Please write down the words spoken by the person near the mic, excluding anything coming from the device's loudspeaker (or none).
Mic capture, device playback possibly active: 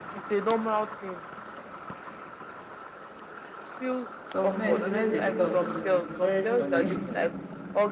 Some men, the way they talk too is very funny.